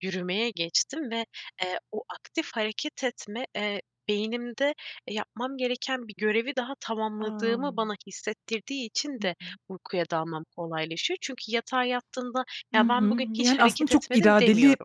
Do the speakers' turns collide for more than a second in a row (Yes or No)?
Yes